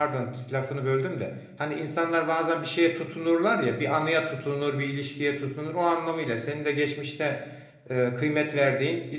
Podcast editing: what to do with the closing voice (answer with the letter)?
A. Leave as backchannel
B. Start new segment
A